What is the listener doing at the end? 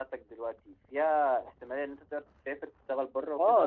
taking over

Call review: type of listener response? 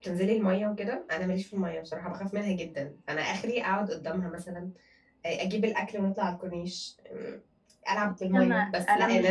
taking over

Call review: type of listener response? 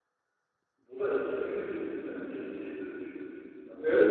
taking over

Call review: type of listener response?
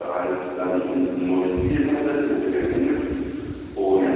listening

